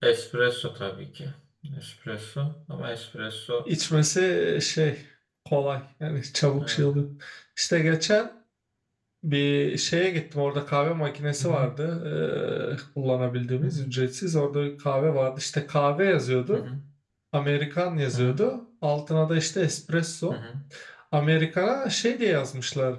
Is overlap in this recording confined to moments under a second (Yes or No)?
Yes